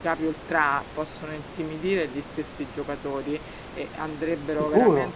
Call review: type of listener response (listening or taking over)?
listening